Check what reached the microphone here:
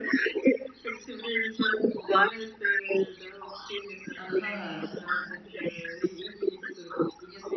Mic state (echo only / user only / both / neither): both